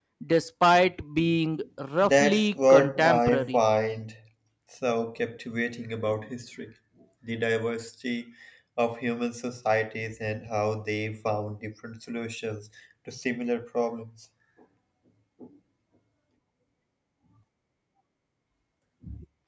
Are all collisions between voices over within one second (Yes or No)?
No